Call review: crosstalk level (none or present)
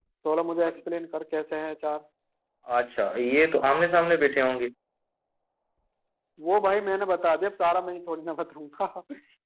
none